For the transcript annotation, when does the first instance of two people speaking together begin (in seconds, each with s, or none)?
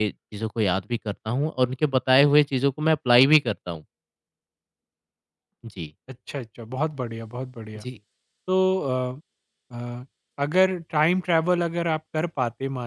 none